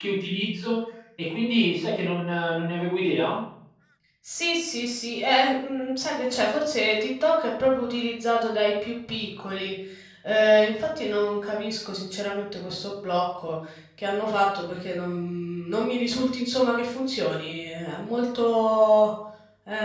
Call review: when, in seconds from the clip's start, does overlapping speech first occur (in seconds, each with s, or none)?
none